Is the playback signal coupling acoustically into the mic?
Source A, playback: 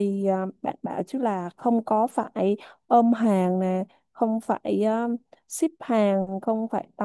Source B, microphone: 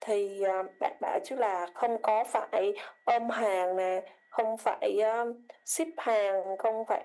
Yes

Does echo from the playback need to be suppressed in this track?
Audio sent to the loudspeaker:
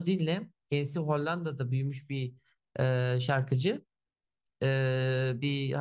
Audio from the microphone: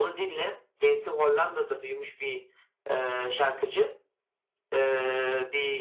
Yes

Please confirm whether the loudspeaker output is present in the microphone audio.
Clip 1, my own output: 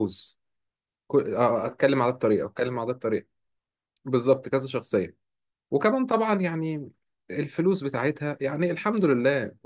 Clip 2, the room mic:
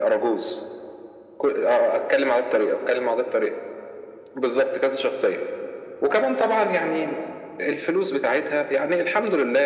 Yes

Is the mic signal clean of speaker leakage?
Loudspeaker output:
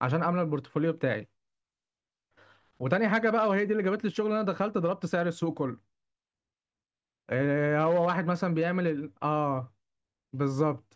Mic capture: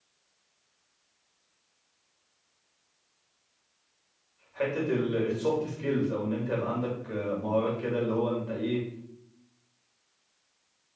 Yes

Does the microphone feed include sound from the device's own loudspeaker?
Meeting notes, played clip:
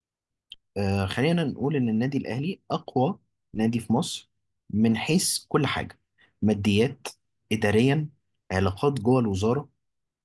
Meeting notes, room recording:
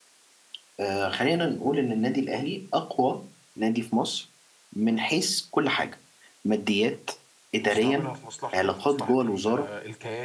Yes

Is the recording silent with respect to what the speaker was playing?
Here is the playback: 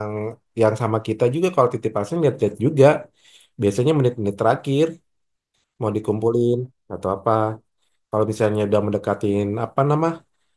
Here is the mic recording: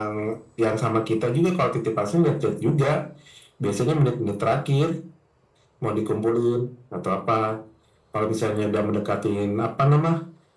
No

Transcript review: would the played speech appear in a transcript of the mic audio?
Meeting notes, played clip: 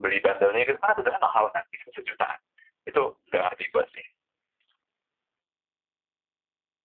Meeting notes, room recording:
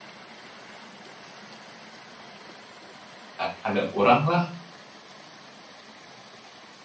No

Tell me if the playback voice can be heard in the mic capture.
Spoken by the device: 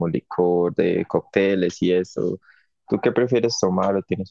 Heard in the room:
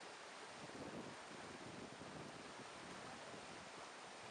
No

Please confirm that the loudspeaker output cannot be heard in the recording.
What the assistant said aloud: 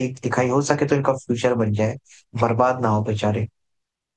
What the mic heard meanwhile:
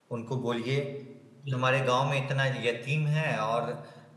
Yes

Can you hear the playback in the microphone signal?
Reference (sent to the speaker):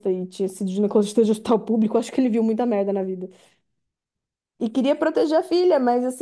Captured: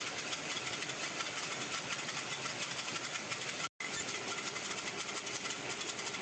No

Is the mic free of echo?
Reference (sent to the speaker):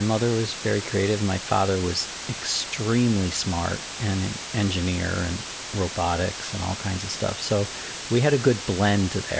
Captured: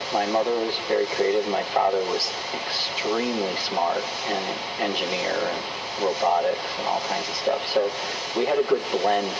No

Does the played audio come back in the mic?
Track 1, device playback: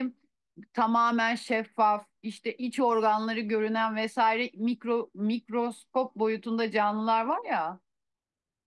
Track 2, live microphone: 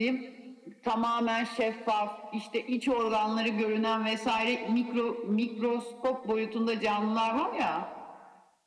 Yes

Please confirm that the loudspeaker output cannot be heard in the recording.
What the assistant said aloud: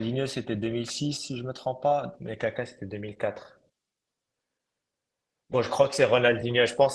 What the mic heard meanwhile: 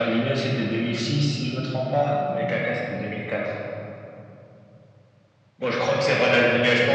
No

